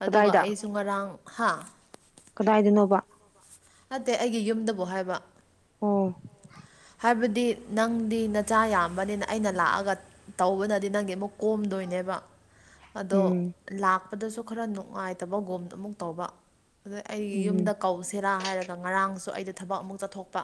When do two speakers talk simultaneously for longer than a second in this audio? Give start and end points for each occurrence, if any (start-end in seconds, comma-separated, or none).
none